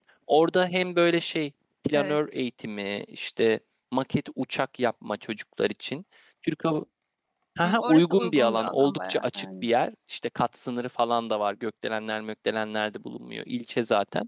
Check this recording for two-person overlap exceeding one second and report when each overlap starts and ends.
7.6-9.7

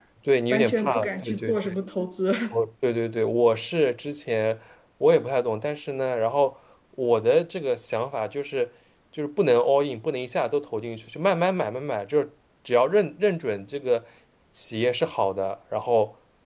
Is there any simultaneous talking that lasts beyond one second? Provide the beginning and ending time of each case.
0.5-1.7

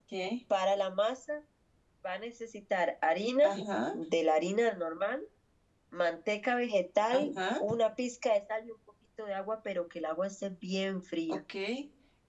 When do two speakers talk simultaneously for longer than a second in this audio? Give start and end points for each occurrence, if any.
none

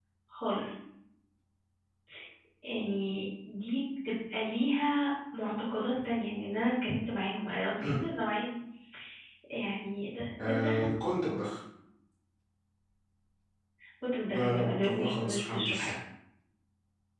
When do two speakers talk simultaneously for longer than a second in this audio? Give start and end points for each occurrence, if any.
14.3-15.9

